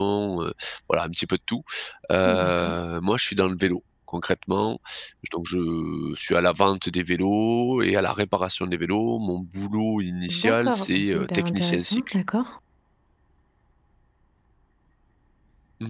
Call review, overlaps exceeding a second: present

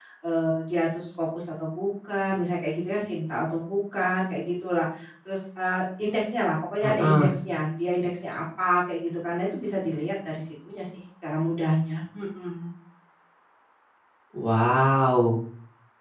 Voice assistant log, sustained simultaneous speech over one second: none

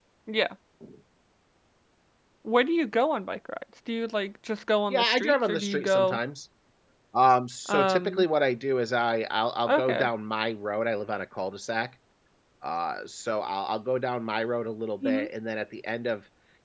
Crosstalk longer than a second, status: present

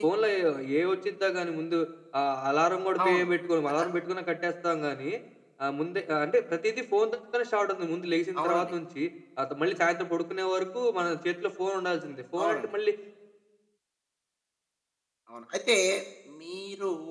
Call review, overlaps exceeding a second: none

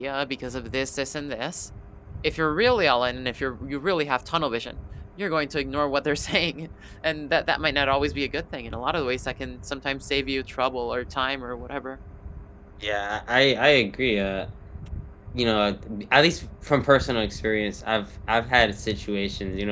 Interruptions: none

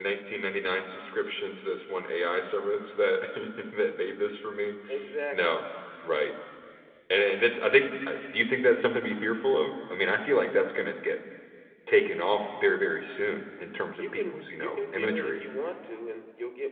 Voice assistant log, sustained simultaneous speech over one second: present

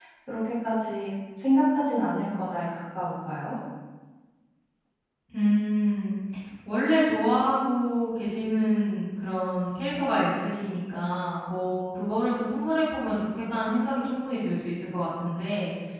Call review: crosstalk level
none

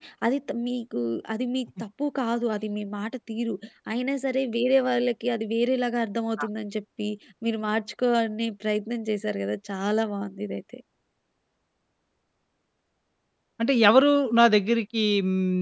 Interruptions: none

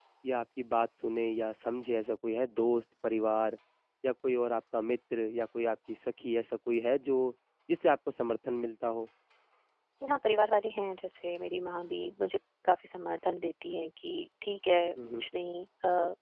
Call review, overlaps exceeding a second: none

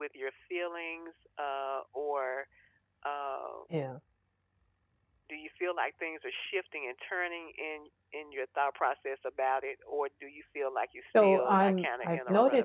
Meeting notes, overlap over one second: present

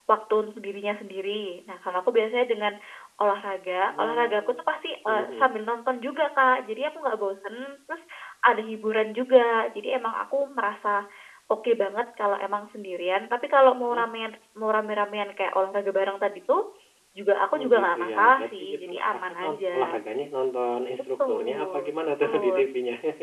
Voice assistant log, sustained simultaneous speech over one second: present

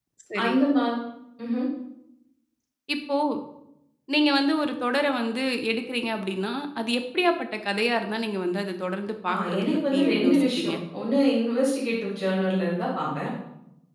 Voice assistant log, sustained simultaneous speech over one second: present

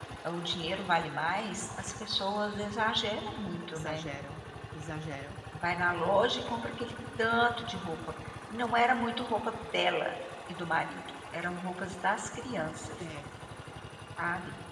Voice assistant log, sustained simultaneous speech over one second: none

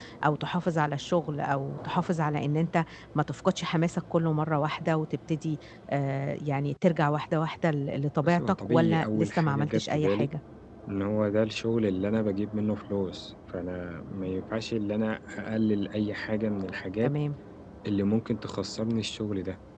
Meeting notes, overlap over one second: present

